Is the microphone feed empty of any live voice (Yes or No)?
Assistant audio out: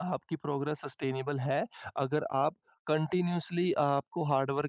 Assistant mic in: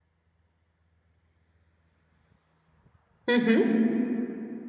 No